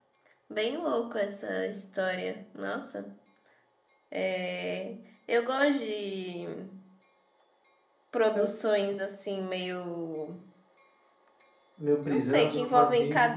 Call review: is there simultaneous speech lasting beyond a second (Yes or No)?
Yes